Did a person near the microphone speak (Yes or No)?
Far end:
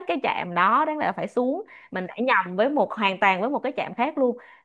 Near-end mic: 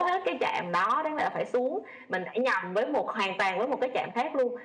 No